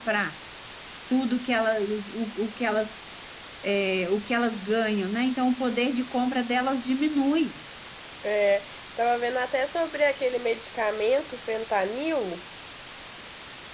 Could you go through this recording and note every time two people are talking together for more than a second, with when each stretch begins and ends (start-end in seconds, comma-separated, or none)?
none